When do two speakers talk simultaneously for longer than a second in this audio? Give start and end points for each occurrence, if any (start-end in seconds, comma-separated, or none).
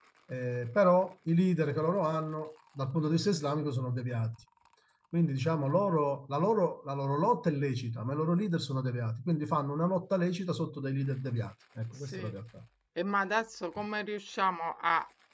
none